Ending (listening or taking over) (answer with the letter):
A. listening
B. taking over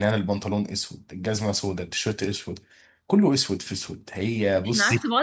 B